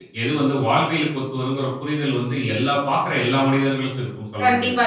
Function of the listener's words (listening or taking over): taking over